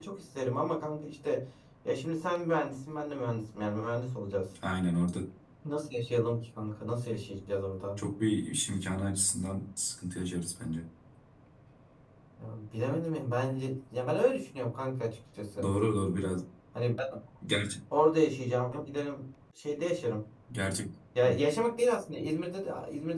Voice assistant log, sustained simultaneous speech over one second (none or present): none